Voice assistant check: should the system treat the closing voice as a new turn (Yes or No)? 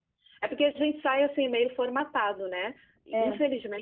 No